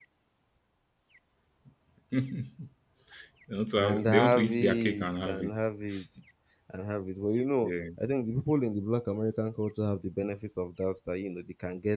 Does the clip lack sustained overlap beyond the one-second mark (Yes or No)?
No